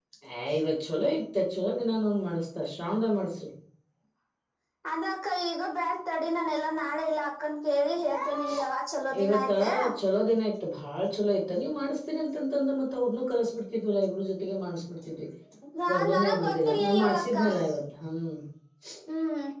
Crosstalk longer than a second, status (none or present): present